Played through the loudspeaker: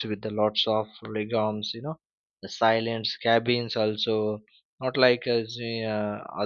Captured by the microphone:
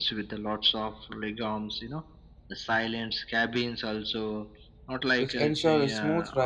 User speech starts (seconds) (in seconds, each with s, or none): 5.2 s